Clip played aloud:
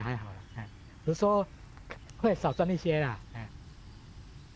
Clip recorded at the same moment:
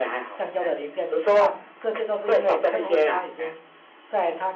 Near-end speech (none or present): present